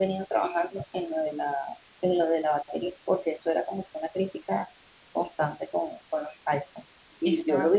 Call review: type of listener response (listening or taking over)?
listening